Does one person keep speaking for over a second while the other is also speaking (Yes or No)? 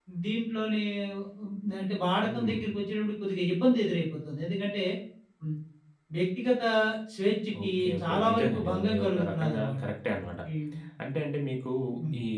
Yes